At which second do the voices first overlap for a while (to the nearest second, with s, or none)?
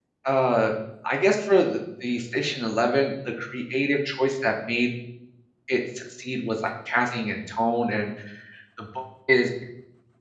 none